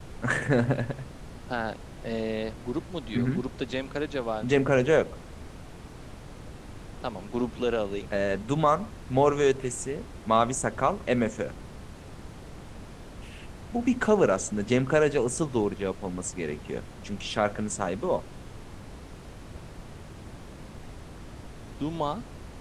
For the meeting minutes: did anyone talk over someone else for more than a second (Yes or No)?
No